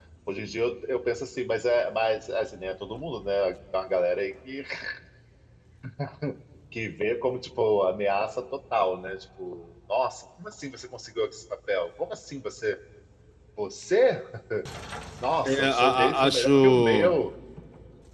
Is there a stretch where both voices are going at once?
Yes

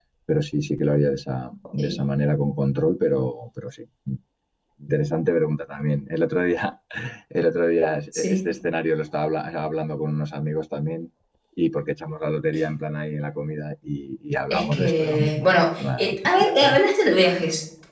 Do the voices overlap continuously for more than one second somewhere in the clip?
Yes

